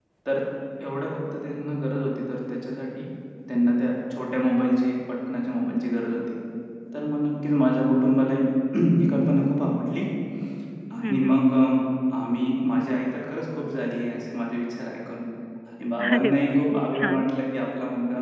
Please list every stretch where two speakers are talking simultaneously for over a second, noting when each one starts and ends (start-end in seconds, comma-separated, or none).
16.0-17.2